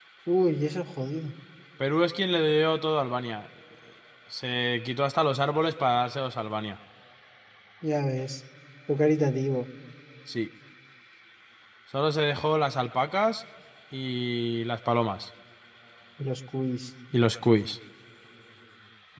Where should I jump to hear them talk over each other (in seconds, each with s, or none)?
none